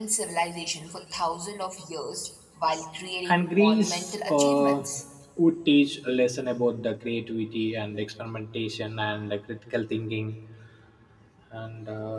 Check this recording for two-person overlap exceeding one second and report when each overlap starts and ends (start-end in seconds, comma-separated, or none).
3.3-4.8